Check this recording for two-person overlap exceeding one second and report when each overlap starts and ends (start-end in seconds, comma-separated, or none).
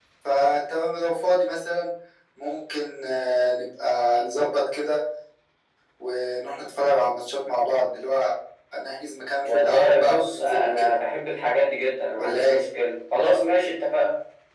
9.4-10.9